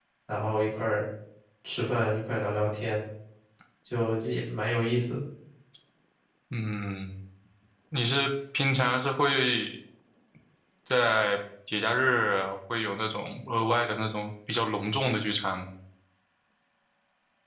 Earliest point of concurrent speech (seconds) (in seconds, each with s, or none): none